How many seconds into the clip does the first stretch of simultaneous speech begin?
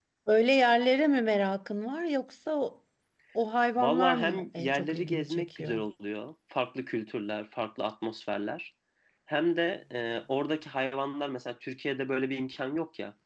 3.8 s

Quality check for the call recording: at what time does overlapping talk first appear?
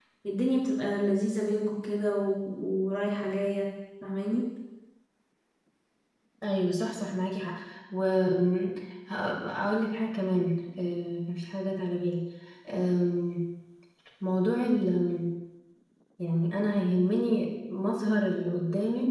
none

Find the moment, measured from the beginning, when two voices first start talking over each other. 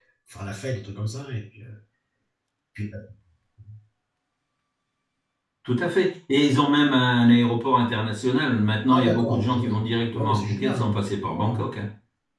8.9 s

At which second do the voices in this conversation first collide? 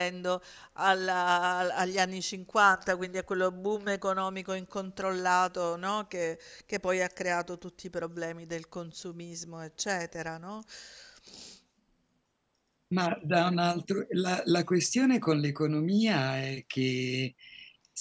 none

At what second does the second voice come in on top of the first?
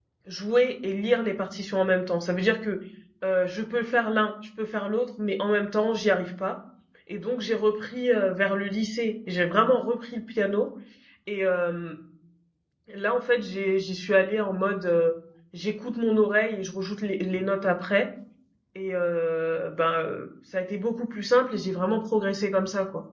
none

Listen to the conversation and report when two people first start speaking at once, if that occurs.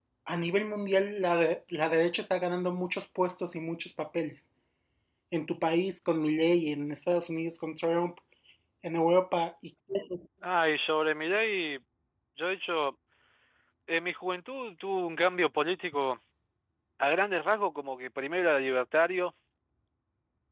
none

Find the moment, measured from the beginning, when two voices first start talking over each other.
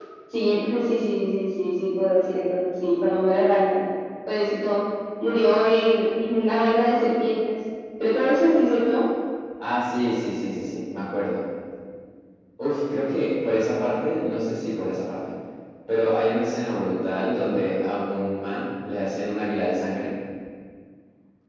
none

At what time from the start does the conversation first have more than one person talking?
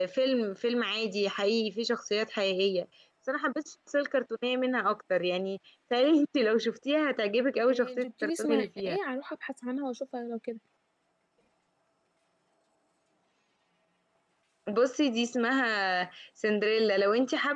7.7 s

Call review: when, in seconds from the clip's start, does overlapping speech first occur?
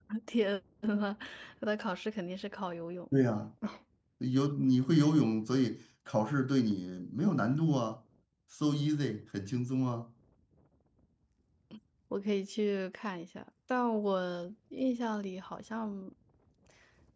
none

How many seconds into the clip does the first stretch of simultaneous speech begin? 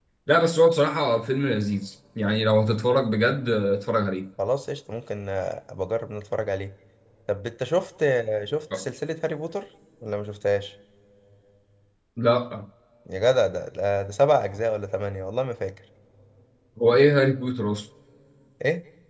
none

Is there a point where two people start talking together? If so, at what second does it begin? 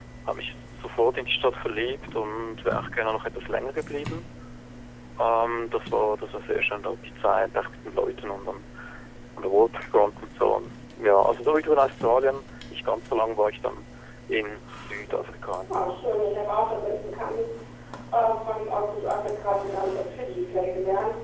none

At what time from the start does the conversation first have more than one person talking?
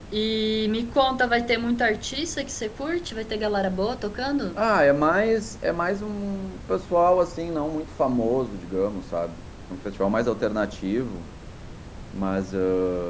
none

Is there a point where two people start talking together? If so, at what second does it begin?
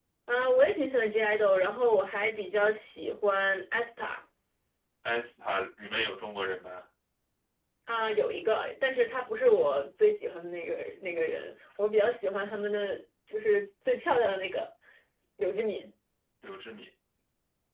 none

